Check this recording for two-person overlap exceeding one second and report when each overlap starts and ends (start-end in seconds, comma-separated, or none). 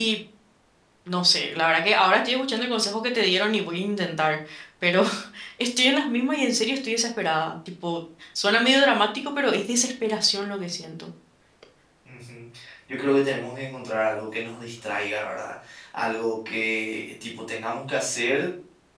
none